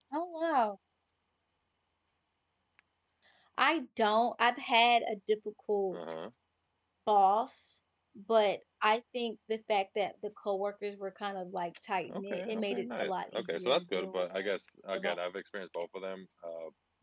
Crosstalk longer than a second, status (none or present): present